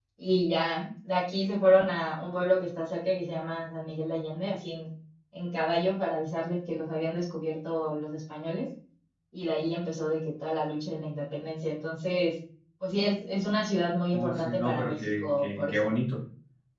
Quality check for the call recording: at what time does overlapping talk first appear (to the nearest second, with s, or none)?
14 s